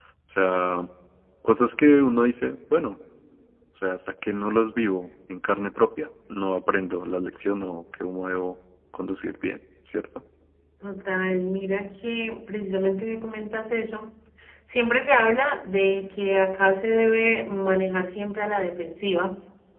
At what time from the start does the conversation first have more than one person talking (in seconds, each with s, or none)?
none